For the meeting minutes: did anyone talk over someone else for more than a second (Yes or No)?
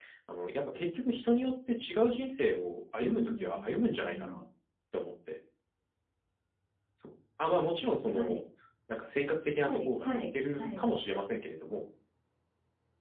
Yes